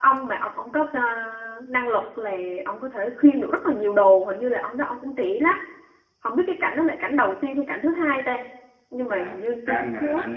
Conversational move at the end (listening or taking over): taking over